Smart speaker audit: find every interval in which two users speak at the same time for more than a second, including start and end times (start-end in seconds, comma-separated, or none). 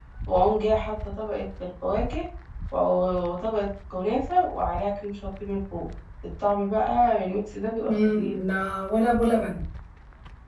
none